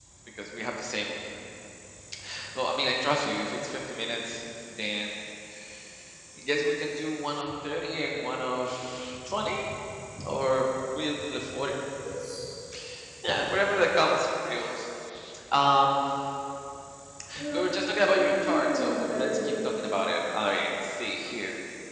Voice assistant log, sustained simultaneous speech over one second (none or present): present